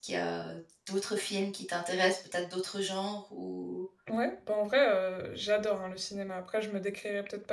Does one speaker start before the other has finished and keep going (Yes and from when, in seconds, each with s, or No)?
No